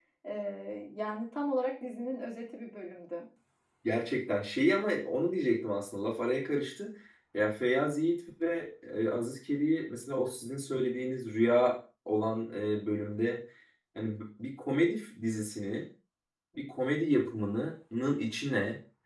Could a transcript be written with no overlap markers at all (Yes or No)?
Yes